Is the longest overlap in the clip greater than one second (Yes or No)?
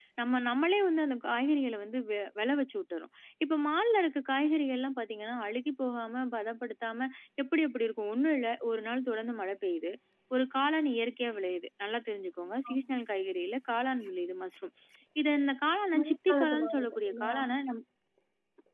Yes